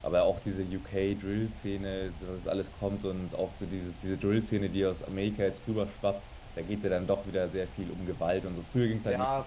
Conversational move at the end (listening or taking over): taking over